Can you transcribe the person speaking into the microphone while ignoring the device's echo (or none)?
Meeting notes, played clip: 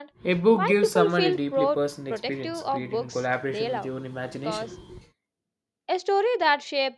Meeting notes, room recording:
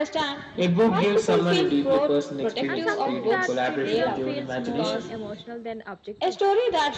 and sometimes that criticism feels more emotional than objective